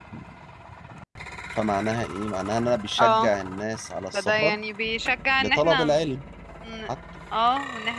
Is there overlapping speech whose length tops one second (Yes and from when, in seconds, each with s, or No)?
No